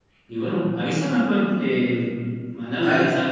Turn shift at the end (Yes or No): No